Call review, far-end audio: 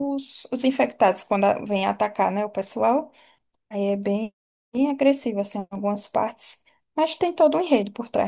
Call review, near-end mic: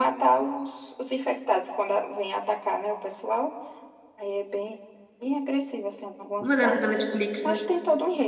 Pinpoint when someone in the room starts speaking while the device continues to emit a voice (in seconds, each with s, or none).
6.4 s